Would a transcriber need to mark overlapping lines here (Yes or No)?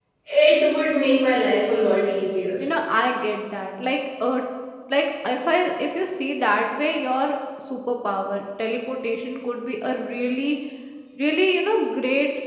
No